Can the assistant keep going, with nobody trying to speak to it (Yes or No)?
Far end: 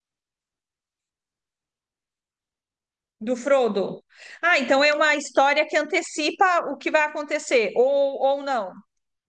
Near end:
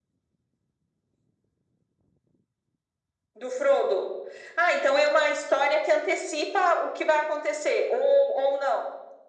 Yes